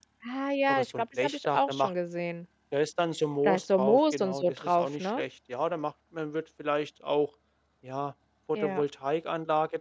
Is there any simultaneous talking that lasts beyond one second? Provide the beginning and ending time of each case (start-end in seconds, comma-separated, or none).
0.7-1.9, 3.4-5.2